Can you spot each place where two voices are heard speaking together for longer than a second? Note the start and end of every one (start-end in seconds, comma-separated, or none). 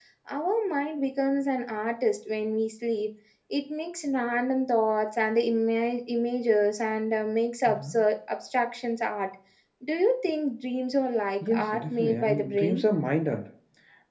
11.5-12.8